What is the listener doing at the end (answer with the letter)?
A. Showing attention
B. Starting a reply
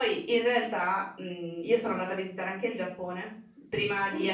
A